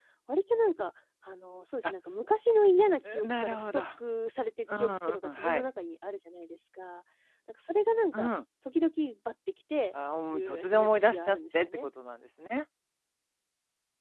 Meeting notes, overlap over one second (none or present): present